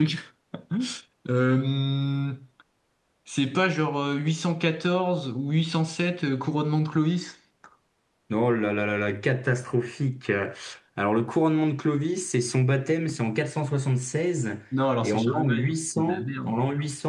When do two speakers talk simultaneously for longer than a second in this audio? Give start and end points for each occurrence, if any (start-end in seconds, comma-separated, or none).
15.0-16.6